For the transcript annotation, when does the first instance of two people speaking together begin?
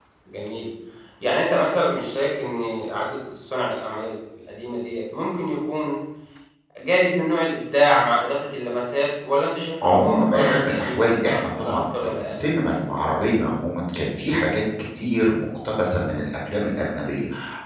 9.8 s

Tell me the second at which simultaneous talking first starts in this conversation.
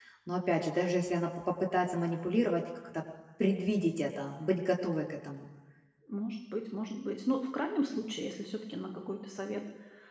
none

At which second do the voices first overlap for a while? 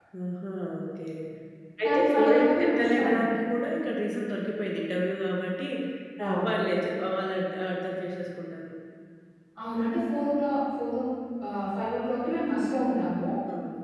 1.8 s

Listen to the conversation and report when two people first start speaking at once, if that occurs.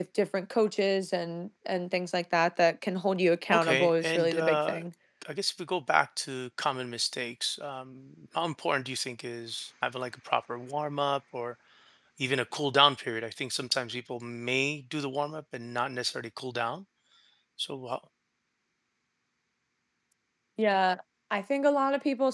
3.5 s

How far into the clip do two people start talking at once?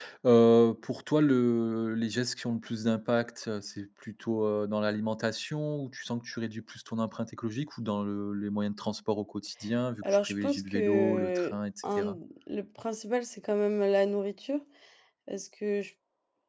10.0 s

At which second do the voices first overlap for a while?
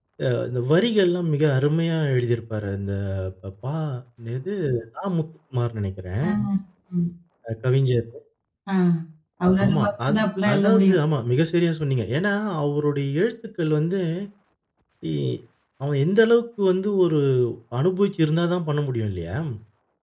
9.7 s

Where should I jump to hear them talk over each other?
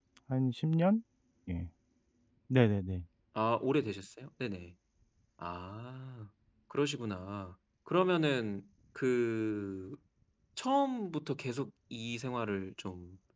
none

